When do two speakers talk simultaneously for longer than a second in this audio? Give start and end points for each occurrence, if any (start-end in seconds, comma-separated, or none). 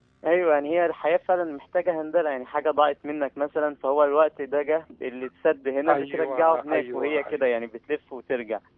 5.9-7.4